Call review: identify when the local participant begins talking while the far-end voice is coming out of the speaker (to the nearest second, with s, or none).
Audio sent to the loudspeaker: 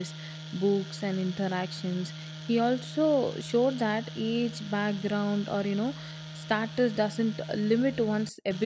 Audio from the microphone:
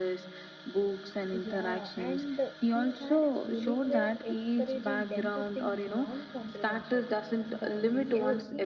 1 s